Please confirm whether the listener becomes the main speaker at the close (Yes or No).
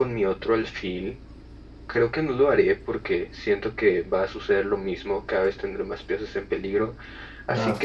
No